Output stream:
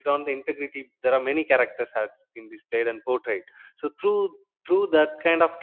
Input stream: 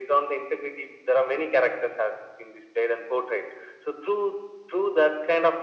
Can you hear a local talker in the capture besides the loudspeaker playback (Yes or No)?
No